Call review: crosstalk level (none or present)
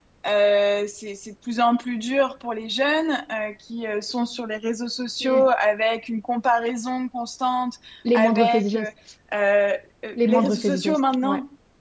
present